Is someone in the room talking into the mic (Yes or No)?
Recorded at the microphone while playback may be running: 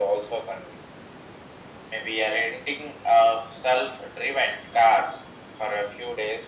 No